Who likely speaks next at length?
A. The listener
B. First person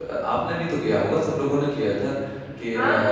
B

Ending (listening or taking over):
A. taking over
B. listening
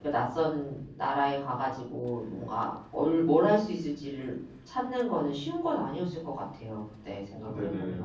B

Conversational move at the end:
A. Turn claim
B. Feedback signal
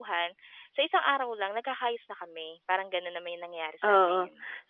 A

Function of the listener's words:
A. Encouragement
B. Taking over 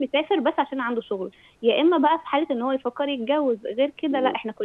A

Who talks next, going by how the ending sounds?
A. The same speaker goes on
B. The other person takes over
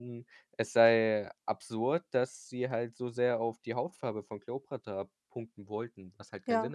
B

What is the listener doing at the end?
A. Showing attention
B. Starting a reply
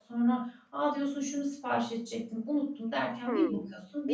B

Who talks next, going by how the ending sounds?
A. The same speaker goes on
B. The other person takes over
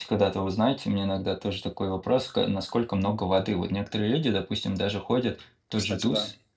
A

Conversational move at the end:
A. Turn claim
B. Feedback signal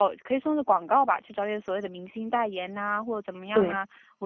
B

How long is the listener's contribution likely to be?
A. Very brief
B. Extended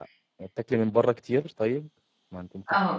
B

